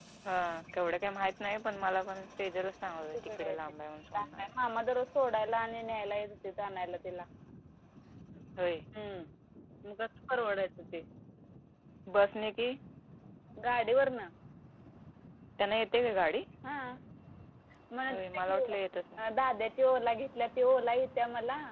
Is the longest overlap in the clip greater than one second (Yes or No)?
No